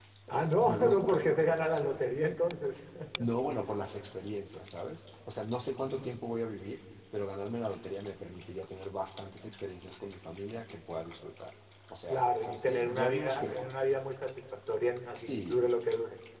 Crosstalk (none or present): present